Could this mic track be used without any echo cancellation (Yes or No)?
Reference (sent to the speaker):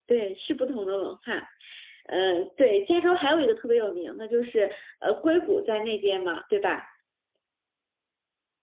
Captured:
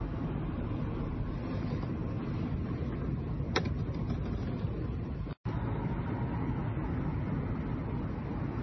Yes